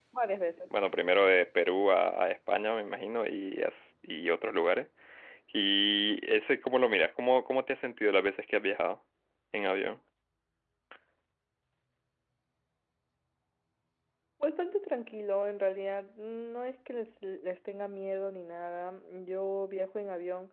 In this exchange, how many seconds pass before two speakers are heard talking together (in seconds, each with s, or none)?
none